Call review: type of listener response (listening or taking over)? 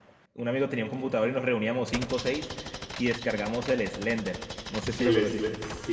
taking over